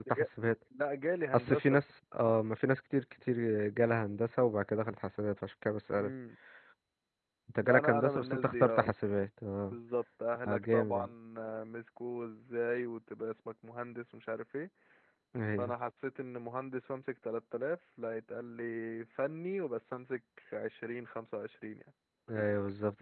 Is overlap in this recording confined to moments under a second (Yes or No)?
No